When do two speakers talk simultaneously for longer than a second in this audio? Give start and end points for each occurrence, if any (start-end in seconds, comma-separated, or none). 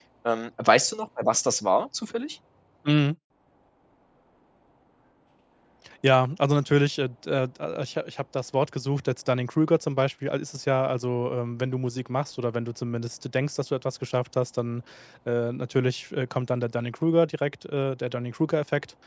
none